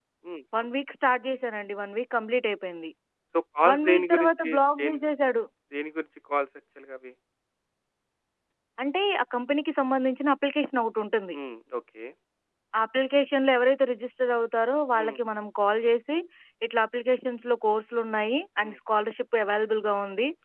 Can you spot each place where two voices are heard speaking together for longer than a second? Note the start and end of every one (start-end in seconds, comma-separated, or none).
3.7-5.0